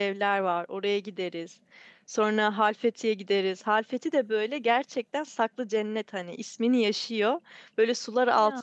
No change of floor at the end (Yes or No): Yes